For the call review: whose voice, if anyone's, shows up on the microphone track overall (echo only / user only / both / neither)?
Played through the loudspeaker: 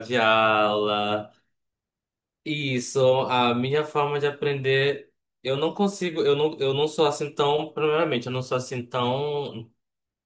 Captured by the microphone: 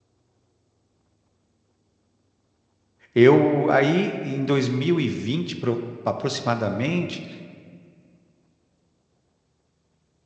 user only